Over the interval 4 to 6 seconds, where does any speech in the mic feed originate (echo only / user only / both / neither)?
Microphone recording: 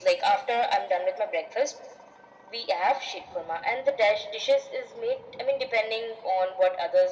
echo only